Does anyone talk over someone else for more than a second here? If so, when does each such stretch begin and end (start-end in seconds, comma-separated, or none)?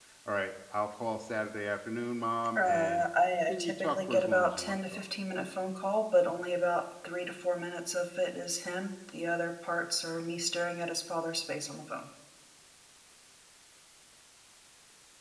3.5-5.0